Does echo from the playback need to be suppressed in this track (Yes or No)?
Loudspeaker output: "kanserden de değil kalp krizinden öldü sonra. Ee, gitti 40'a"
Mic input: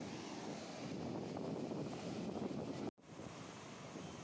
No